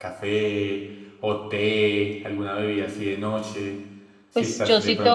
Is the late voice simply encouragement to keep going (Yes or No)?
No